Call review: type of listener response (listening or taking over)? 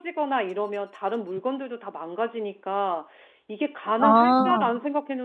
listening